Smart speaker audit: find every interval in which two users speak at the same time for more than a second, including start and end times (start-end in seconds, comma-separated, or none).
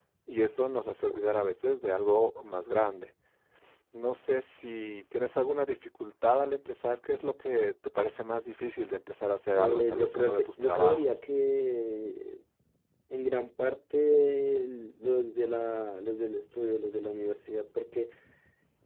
9.5-11.0